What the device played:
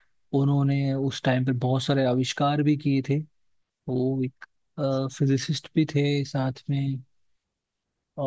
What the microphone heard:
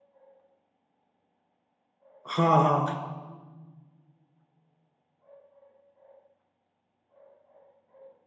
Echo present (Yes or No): No